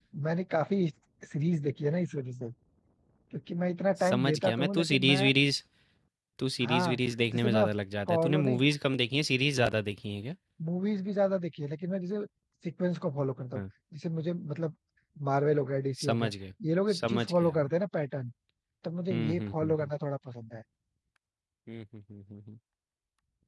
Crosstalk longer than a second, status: present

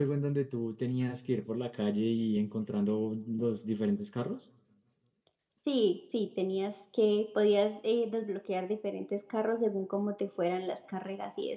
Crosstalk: none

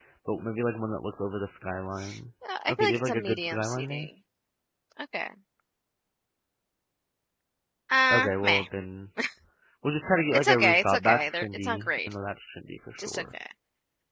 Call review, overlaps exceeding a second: present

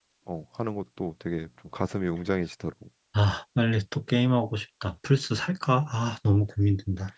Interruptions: none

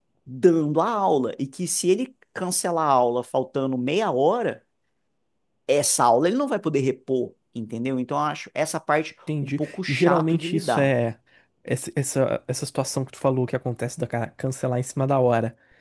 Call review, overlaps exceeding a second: present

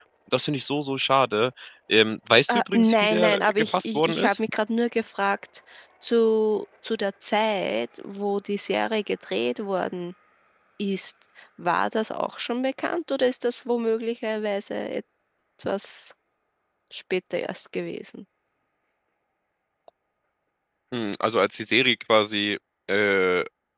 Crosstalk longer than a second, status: present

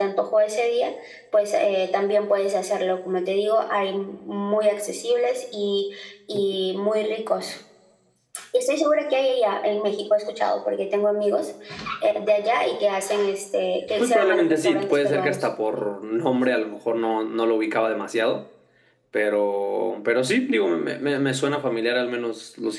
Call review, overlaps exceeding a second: present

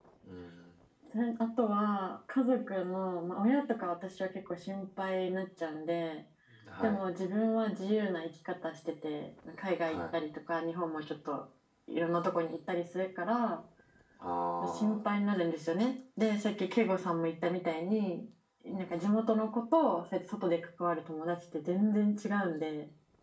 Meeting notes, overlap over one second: none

